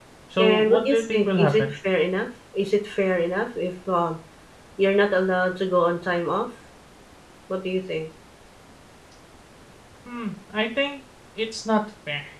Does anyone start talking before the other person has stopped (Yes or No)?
Yes